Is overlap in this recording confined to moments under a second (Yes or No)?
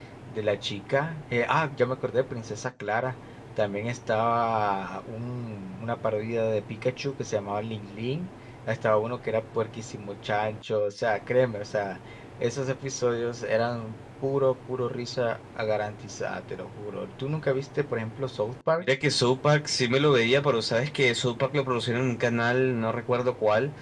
Yes